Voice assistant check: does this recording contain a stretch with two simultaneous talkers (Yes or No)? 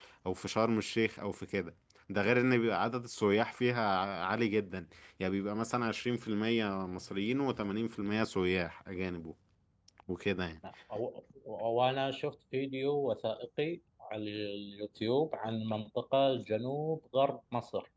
No